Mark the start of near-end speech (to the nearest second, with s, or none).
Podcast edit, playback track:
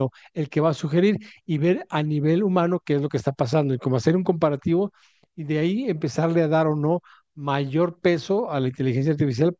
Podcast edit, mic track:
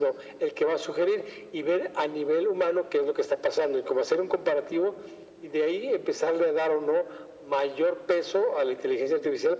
none